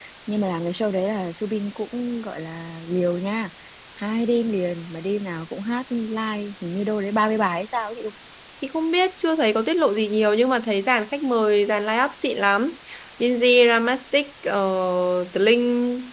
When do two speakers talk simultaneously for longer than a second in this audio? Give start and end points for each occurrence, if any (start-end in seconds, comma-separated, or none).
none